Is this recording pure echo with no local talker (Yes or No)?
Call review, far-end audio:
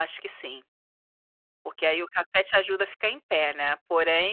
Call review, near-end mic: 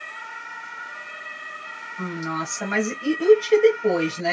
No